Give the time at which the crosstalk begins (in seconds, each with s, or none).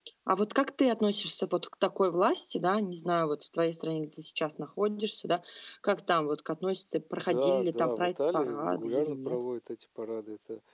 7.2 s